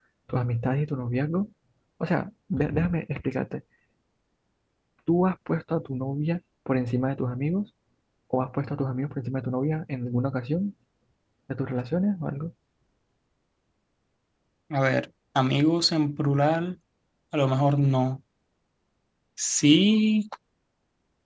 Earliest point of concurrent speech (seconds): none

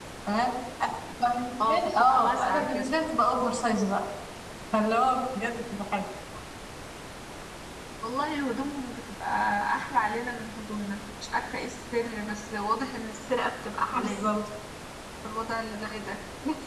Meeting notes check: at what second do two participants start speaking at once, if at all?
1.6 s

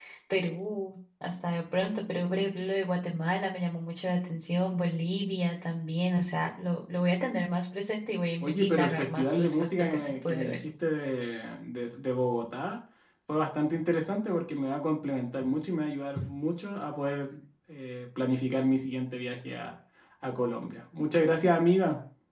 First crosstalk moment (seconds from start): 8.4 s

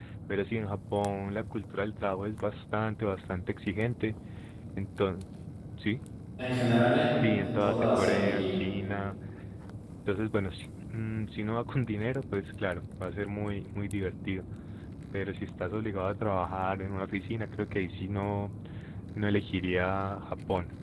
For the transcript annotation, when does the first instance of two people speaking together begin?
7.1 s

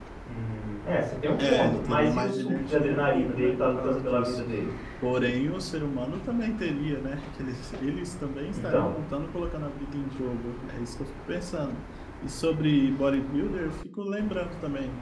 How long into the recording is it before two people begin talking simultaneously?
1.5 s

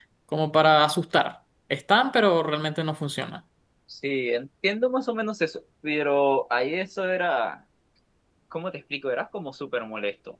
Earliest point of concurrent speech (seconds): none

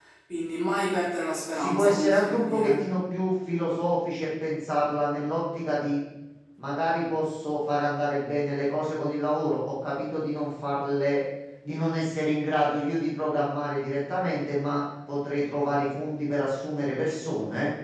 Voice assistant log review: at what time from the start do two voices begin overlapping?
1.5 s

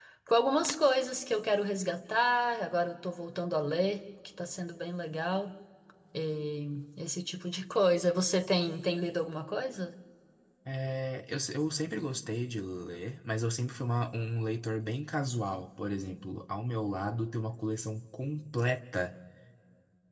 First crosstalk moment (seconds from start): none

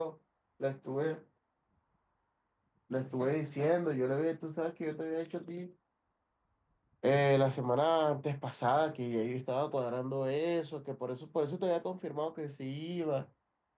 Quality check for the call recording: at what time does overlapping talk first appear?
none

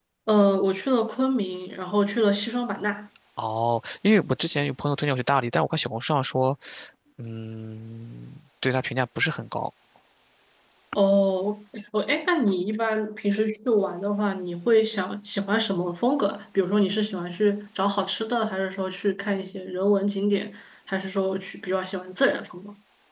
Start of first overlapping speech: none

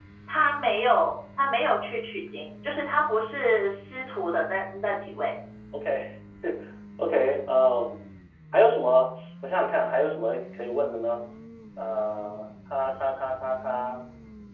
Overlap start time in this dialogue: none

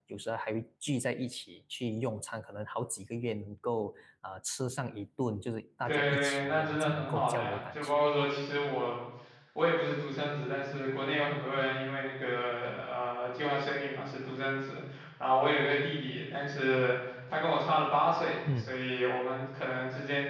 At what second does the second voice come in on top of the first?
5.9 s

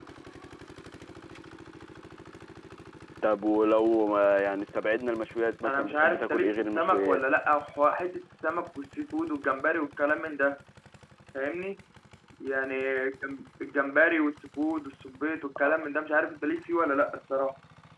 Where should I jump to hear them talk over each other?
5.6 s

